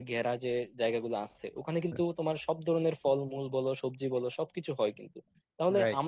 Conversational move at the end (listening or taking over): listening